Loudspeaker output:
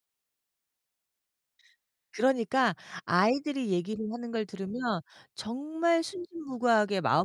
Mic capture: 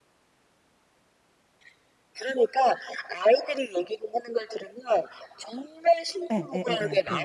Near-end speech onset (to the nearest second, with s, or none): 6 s